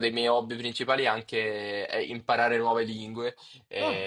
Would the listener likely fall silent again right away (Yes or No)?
Yes